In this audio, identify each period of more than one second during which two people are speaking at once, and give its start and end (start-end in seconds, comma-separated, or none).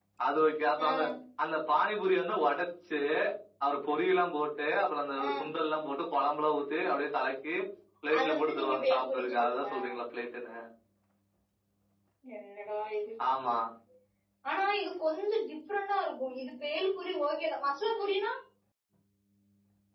8.2-9.7